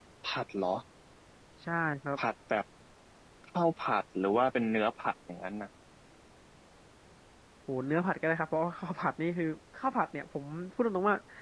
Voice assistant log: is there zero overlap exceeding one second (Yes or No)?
Yes